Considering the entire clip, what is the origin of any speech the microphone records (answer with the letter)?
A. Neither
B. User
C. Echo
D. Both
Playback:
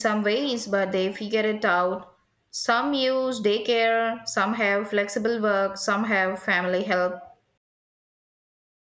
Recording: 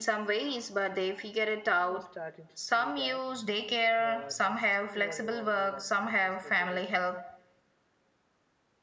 D